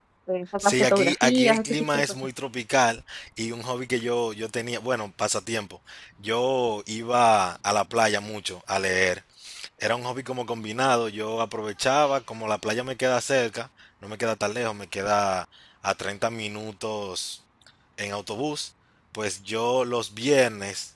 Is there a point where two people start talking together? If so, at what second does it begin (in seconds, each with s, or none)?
0.6 s